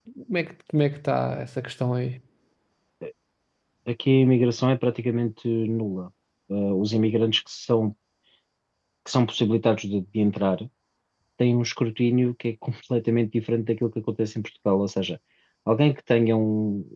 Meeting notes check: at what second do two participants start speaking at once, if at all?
none

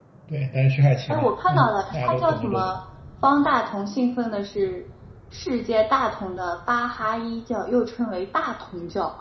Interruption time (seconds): 1.1 s

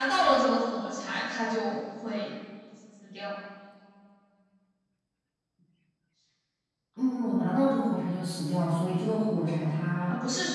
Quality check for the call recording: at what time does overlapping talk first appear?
none

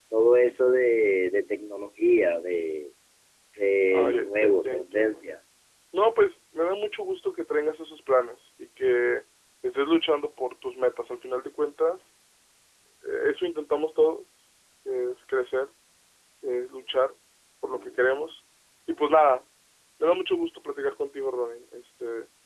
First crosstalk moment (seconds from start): 3.9 s

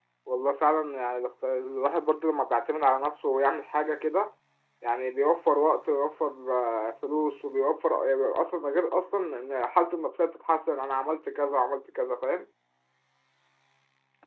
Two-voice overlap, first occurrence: none

